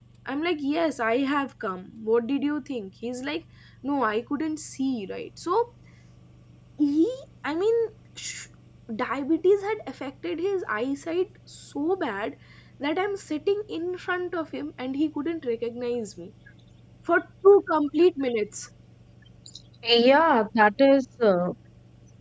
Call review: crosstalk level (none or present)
none